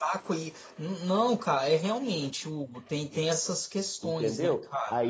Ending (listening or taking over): taking over